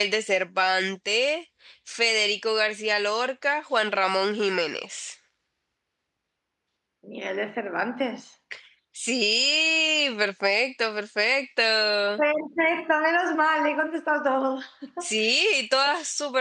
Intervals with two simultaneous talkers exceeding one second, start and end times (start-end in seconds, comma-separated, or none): none